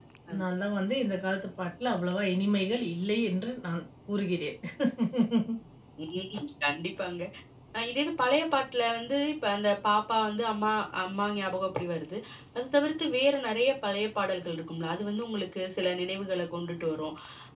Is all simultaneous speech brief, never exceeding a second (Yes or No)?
Yes